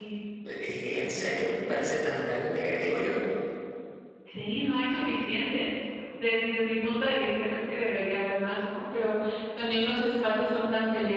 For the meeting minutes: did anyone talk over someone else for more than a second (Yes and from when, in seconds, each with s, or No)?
No